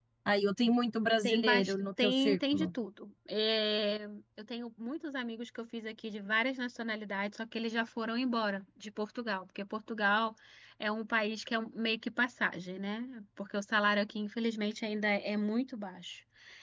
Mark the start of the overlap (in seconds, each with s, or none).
1.2 s